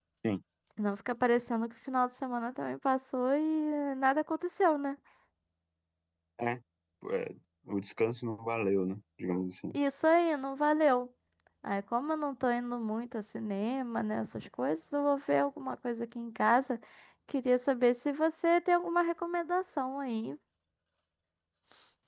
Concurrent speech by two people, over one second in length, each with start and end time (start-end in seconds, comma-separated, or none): none